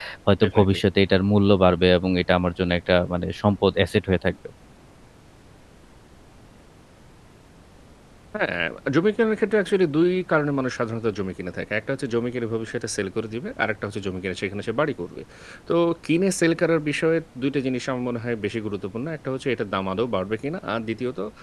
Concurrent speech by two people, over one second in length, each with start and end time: none

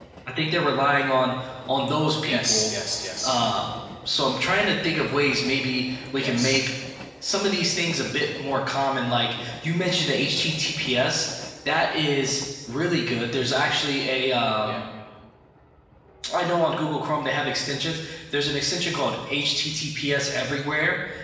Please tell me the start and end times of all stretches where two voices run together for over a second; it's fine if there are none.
none

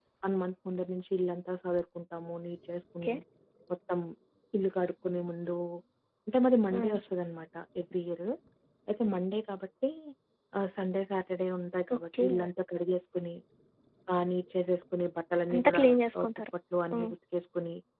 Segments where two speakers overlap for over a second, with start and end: none

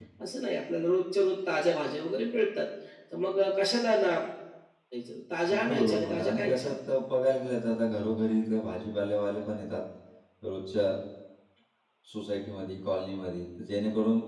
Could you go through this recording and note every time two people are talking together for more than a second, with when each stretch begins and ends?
5.5-6.7

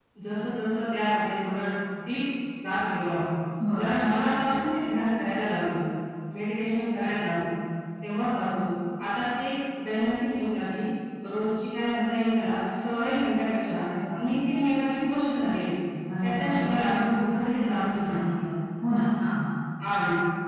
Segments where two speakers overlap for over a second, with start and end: 16.2-18.1

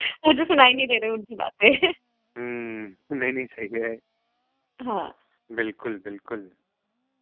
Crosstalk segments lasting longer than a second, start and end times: none

